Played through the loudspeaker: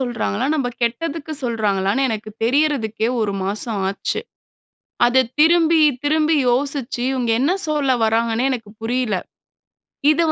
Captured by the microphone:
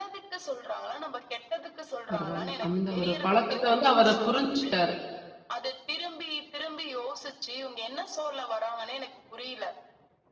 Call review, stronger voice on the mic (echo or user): user